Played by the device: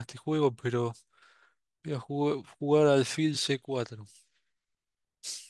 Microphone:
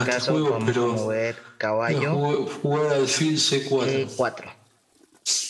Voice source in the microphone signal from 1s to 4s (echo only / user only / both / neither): both